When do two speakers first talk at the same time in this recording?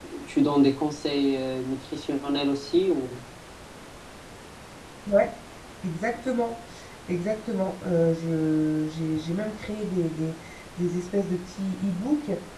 none

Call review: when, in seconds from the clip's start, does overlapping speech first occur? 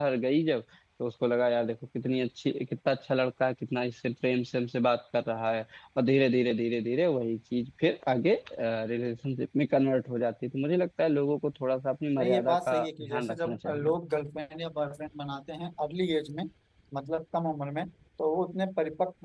12.2 s

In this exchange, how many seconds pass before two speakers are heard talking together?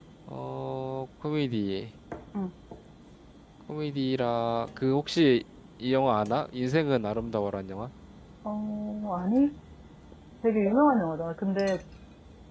none

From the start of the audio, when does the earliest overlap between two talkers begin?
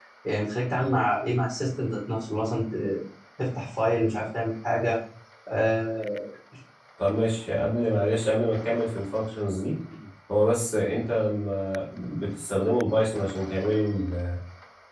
none

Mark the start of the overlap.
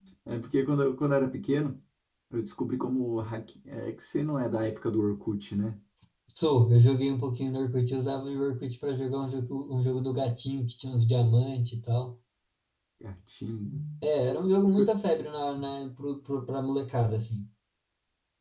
none

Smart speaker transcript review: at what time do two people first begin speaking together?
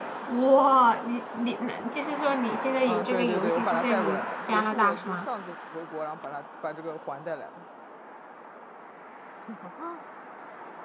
2.8 s

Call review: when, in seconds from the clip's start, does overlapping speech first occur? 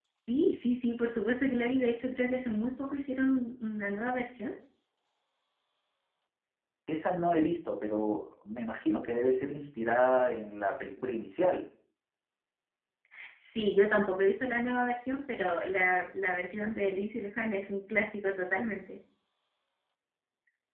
none

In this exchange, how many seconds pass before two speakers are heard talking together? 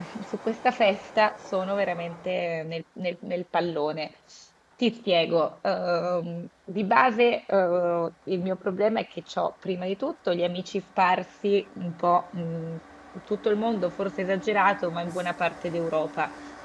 none

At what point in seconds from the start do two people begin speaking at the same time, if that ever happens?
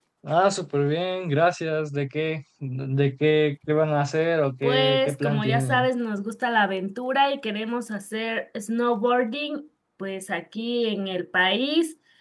4.6 s

